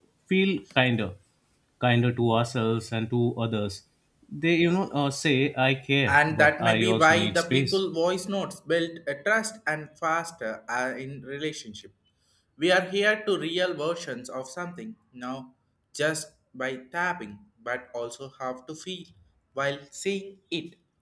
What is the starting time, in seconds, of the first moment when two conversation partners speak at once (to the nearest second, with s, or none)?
6 s